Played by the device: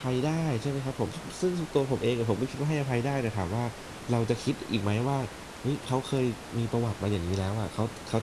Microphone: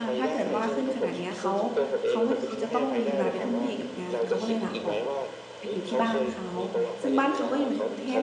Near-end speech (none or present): present